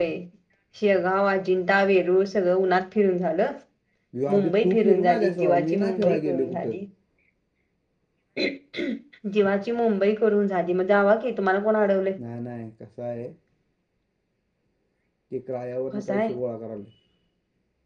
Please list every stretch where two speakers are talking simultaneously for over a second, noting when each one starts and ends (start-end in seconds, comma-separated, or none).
4.3-6.7